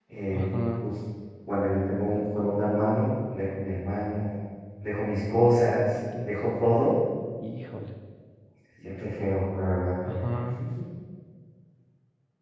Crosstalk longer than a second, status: none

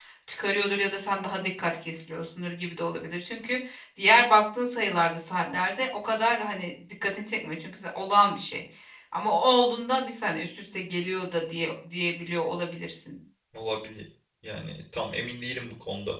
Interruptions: none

